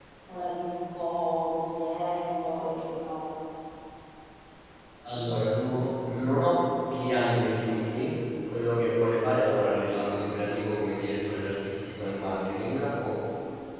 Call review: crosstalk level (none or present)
none